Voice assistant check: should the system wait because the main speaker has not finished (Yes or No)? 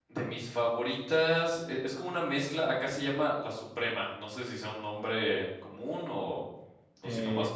No